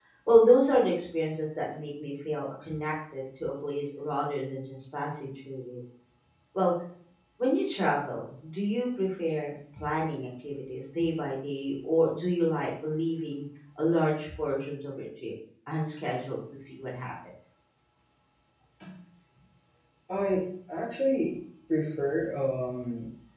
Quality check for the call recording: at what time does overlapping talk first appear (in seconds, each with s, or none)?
none